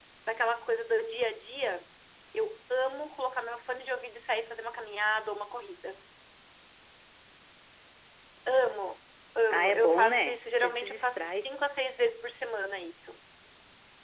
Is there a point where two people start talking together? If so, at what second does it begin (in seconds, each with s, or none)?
9.5 s